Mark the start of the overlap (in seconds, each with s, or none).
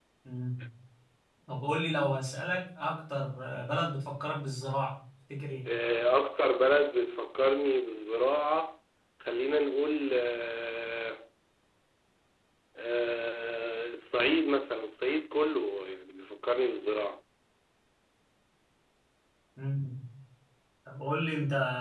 none